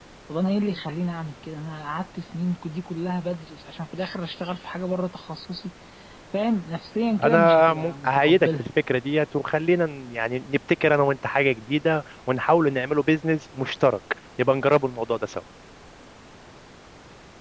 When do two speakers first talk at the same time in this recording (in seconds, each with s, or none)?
7.2 s